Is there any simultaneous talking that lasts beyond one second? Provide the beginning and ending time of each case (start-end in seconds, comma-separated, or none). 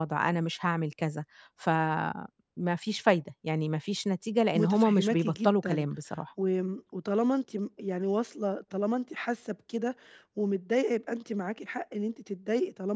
4.5-5.9